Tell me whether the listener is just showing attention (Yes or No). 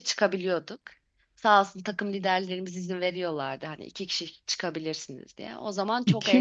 No